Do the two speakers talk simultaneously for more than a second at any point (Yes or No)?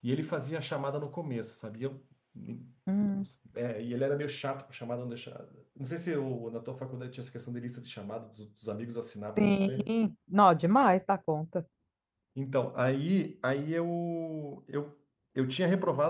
No